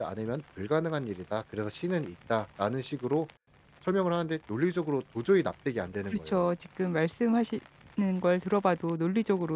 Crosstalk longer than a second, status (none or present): none